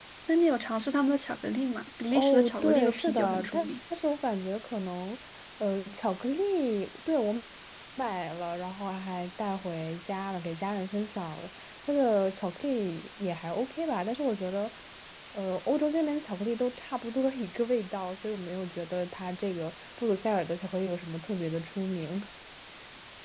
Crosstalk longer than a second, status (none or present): present